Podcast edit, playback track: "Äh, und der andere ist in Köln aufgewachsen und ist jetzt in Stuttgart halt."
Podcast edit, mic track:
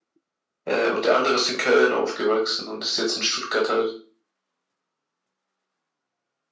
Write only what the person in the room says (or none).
none